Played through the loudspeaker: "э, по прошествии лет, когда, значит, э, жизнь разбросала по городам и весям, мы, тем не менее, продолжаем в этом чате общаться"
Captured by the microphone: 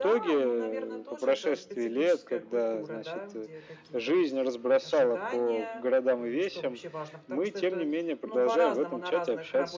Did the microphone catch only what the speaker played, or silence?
No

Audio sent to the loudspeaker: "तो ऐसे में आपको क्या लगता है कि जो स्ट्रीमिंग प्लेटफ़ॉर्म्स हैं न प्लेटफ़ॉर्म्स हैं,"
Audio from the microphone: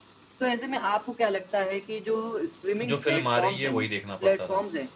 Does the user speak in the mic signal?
Yes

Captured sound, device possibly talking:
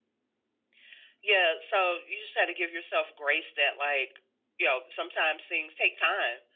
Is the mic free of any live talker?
Yes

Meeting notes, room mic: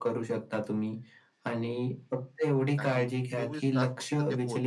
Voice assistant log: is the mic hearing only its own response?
No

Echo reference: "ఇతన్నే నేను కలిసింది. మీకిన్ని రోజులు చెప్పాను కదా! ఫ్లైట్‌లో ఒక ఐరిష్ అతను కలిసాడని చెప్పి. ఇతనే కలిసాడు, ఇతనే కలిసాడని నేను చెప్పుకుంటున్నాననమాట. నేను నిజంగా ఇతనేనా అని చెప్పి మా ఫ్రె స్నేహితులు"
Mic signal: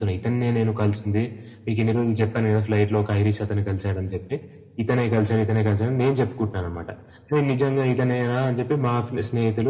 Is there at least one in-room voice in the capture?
No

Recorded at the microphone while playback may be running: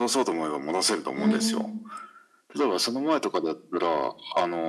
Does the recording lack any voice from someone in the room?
No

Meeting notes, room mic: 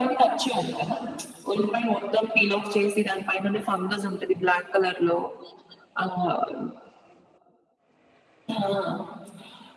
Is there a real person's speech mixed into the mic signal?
No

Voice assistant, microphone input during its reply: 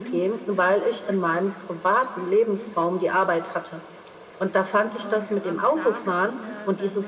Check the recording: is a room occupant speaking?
Yes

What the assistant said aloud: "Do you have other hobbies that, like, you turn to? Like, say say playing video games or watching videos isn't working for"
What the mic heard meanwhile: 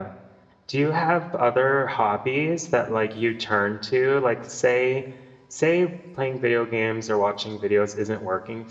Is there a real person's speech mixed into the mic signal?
No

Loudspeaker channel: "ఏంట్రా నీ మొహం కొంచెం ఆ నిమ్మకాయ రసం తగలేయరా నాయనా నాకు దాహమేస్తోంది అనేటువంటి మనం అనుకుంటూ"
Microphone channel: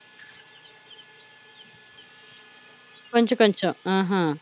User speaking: Yes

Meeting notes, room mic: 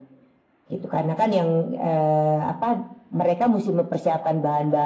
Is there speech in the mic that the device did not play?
No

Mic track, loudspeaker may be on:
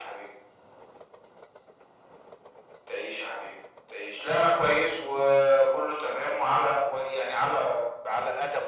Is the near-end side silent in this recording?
Yes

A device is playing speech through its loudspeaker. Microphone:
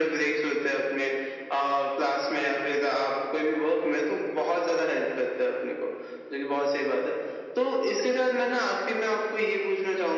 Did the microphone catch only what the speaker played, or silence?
Yes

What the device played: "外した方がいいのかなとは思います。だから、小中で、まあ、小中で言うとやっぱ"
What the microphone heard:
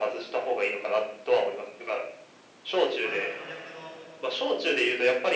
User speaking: Yes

